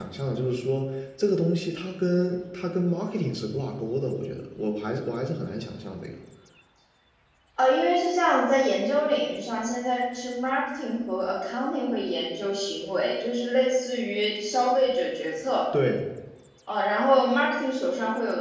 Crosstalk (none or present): none